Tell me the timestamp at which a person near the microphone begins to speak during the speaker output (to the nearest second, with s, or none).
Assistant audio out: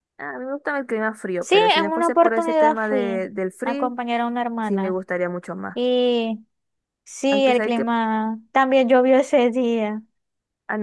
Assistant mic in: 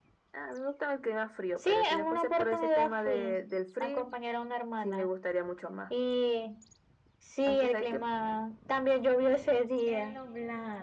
10 s